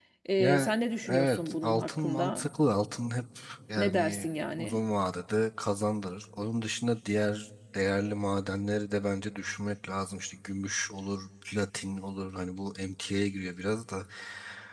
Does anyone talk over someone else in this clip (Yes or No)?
Yes